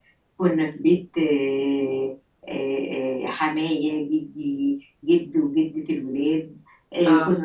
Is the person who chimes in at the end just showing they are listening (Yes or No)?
Yes